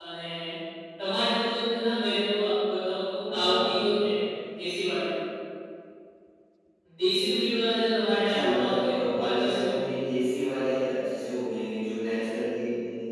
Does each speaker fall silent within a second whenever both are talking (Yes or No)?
No